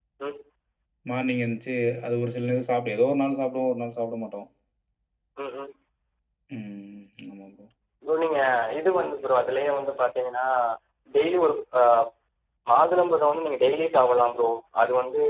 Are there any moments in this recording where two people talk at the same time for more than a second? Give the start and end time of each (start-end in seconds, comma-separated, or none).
none